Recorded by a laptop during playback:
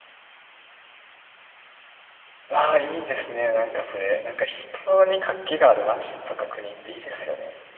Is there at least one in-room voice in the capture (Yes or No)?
Yes